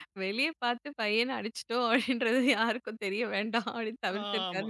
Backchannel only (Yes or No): No